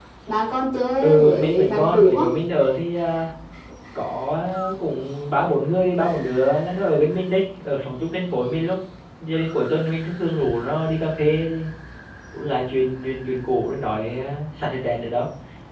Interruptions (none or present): present